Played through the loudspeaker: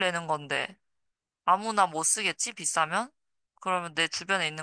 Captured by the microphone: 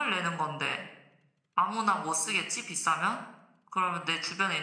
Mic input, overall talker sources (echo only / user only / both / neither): echo only